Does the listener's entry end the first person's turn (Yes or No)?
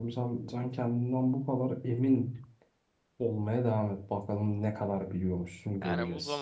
Yes